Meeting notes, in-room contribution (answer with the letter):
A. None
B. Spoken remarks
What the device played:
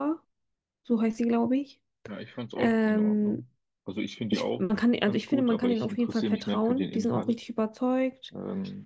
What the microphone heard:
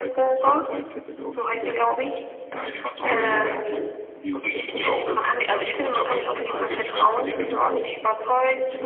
B